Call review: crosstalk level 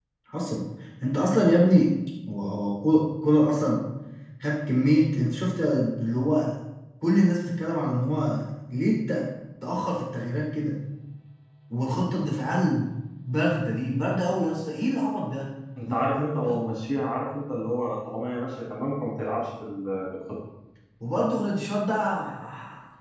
none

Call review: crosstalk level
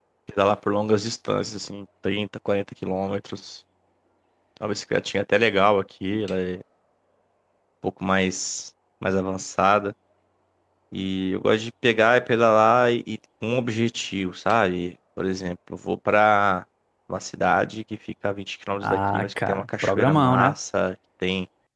present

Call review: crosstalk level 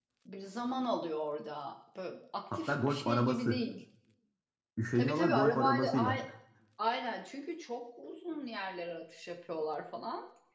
present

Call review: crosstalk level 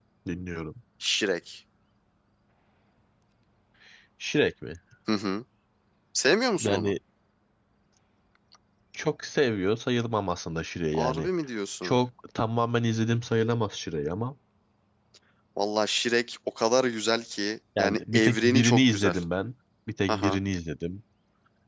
present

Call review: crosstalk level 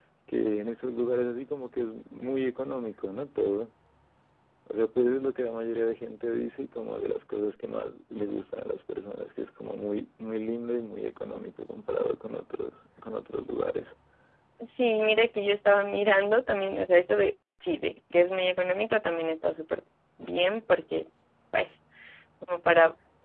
none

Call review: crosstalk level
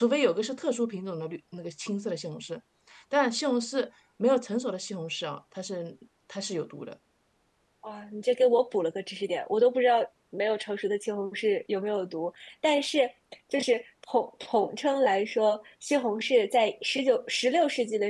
none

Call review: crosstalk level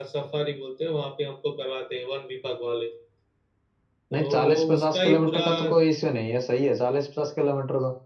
present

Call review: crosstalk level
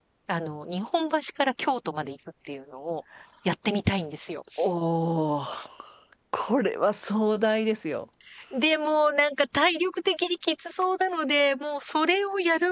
none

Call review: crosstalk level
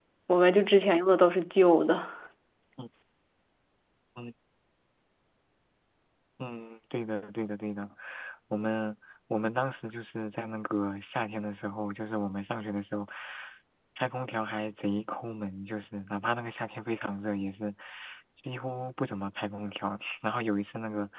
none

